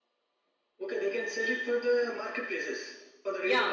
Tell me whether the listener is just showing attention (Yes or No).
No